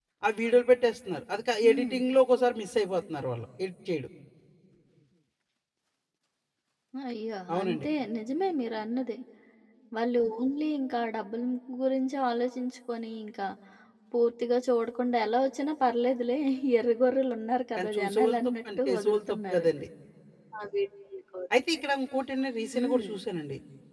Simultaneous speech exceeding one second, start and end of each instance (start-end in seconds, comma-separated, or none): 17.8-19.6